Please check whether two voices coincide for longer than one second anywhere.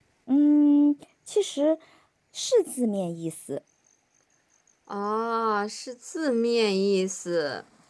No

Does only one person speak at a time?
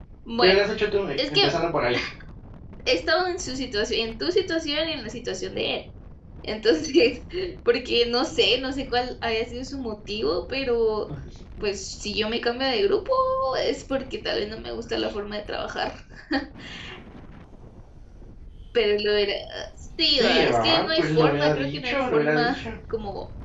No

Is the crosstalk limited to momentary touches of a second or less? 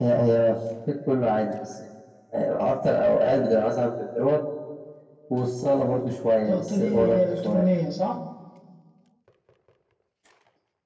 No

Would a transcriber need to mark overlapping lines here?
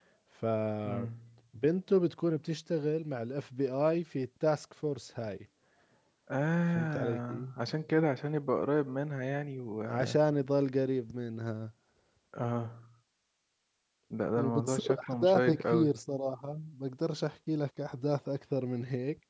Yes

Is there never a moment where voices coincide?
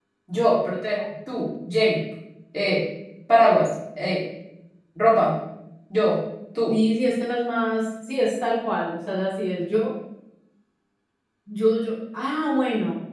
Yes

